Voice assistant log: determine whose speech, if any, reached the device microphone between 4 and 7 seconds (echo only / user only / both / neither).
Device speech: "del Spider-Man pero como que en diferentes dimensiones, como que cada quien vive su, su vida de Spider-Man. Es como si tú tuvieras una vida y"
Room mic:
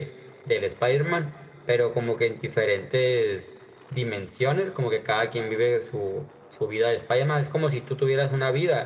echo only